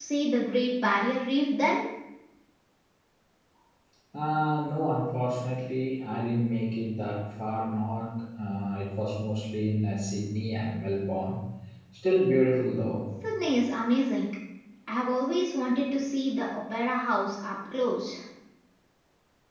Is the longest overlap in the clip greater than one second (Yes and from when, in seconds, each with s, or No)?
No